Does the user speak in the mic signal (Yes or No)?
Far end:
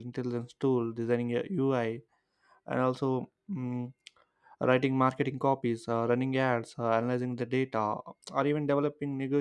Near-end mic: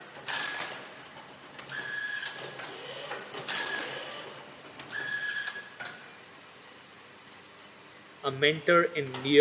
Yes